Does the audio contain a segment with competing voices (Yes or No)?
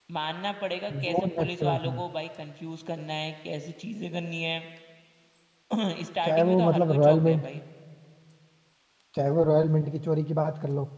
Yes